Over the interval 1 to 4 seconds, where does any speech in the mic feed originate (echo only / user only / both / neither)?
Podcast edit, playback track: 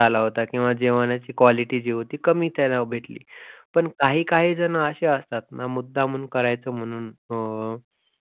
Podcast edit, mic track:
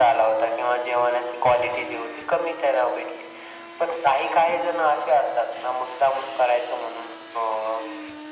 echo only